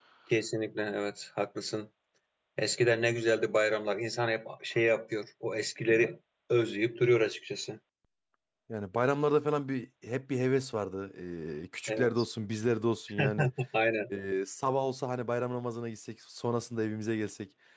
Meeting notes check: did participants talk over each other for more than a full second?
No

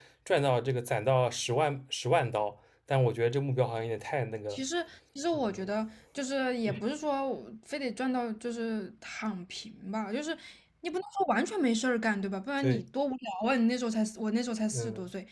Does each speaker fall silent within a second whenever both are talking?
Yes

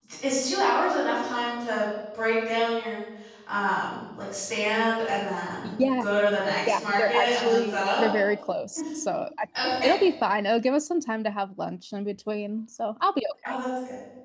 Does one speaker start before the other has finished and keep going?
Yes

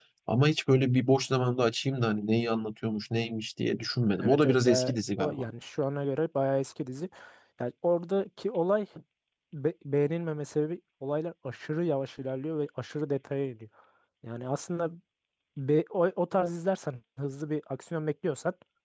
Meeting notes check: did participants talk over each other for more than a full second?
Yes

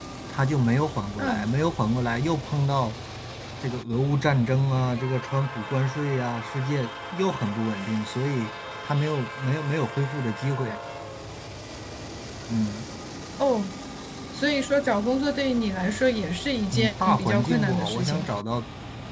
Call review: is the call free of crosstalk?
No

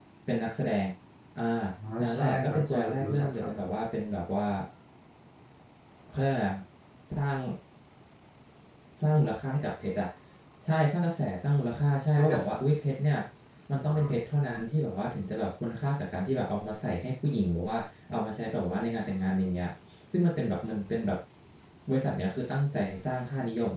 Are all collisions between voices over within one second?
No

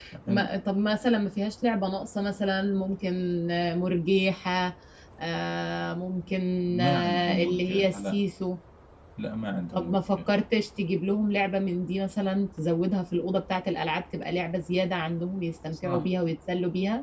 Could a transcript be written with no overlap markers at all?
No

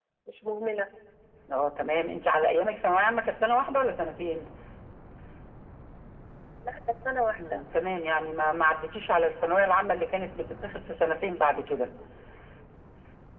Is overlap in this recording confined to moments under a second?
Yes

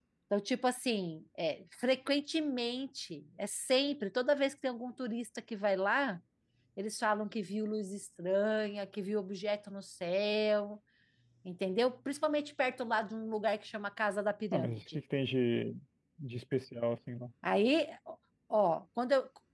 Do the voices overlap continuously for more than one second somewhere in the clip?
No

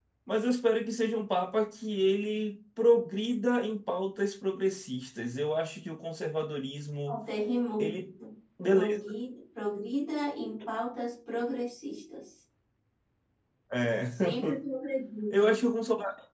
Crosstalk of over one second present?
No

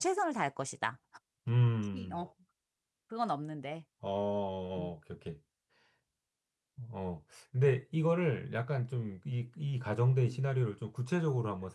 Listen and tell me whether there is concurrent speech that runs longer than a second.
No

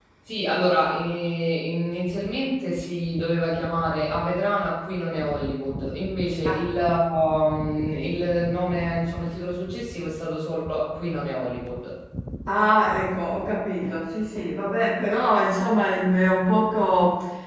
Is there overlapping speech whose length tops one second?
No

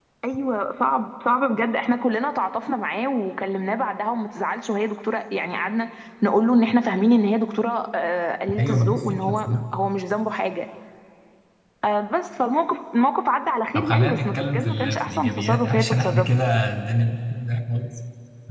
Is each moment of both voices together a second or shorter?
No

